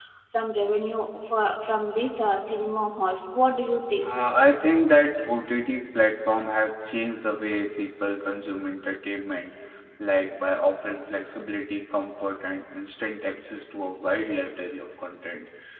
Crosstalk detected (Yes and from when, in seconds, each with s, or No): No